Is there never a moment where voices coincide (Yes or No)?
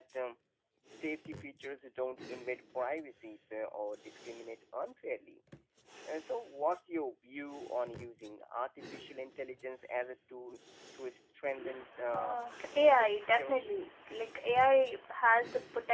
No